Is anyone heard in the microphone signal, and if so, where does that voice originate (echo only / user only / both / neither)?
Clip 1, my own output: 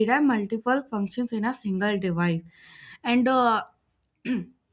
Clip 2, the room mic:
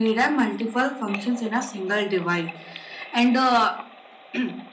echo only